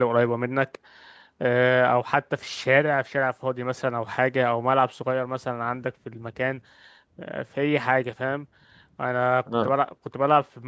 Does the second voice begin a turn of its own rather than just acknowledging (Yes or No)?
No